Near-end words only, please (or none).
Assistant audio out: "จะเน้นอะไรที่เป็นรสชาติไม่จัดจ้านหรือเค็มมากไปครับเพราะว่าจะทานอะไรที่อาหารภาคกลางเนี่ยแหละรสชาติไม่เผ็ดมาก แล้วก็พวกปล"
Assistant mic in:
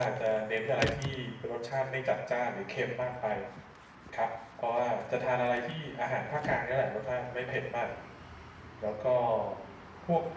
none